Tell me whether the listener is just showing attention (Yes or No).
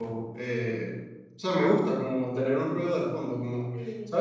Yes